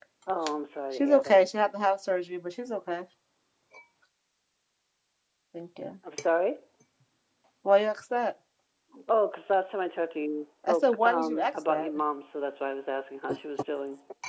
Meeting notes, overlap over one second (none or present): present